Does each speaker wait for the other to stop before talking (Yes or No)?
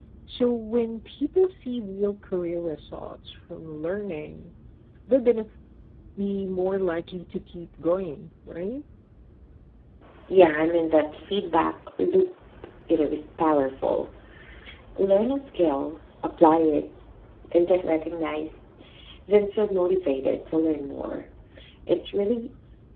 Yes